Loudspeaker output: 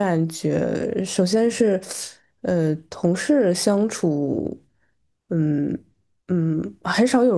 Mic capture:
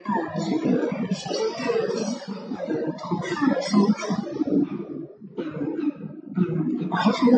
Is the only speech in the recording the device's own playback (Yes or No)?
Yes